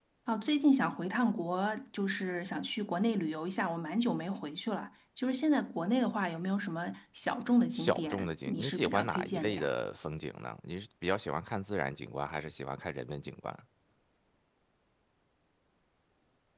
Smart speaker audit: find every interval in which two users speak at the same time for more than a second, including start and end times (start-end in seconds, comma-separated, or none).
7.8-9.7